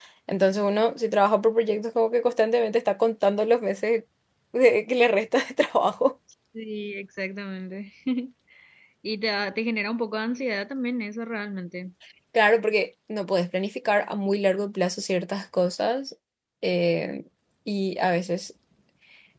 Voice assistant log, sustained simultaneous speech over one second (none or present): none